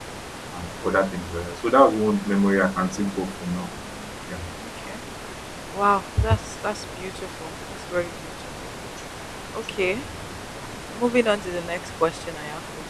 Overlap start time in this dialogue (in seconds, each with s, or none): none